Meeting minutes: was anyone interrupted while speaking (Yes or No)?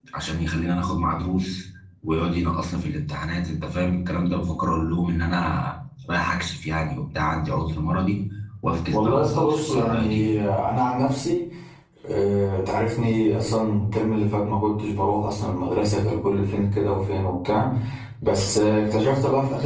Yes